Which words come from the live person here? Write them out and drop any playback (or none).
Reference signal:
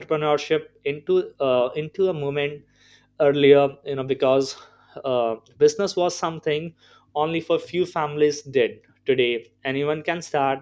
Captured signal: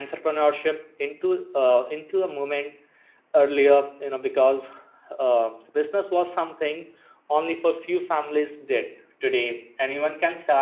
none